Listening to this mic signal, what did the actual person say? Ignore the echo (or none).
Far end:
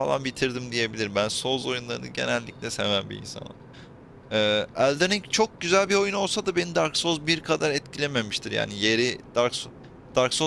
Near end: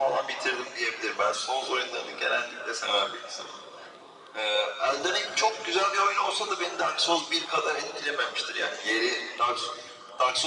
none